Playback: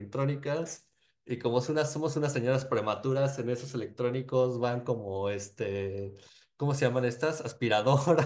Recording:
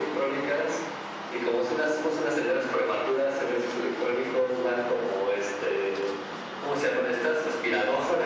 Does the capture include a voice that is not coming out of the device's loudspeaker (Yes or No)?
No